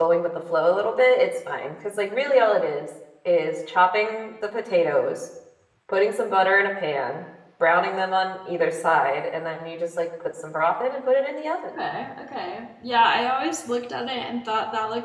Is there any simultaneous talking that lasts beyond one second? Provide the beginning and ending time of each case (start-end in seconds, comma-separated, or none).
none